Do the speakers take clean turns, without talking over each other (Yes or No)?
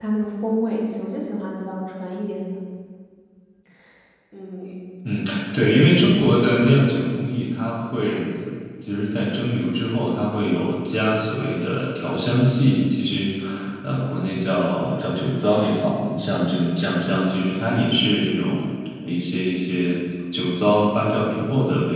Yes